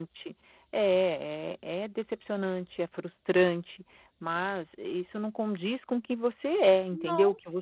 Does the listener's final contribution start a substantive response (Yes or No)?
No